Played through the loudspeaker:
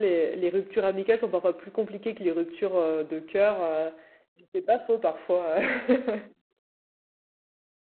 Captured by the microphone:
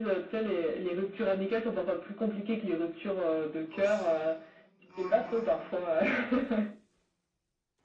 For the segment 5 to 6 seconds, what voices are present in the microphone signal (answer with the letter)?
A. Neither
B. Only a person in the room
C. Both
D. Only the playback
C